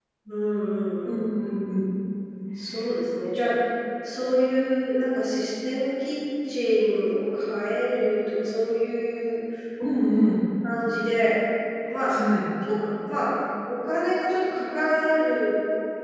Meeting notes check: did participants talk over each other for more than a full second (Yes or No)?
No